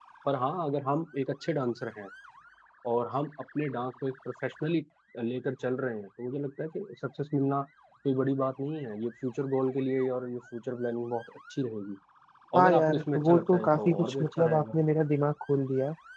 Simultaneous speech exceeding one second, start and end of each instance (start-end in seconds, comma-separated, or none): 12.6-14.8